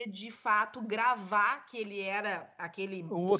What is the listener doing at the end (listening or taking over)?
taking over